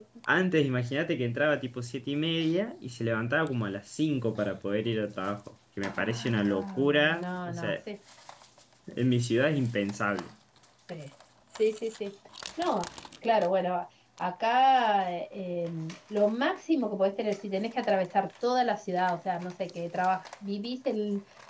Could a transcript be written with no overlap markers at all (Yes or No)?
No